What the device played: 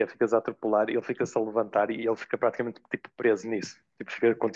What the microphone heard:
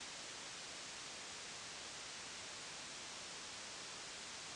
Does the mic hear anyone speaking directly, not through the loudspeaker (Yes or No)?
No